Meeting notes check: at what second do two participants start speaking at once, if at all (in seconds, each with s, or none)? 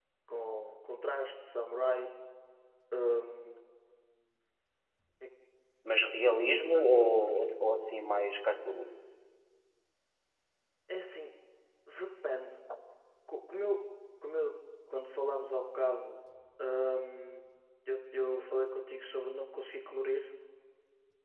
none